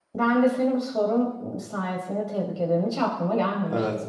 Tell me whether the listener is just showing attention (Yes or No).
No